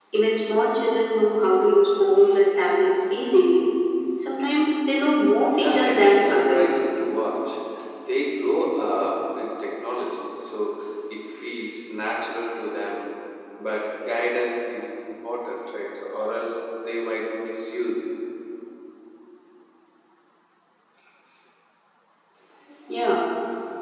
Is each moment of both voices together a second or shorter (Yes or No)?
No